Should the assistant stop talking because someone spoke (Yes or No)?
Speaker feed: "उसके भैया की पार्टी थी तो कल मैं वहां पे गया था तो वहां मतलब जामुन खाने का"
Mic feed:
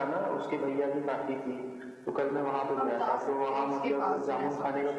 Yes